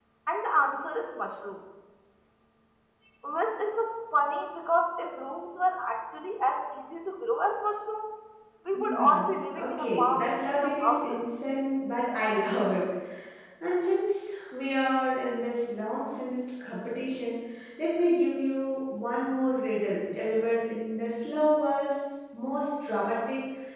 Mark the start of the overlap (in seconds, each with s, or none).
8.7 s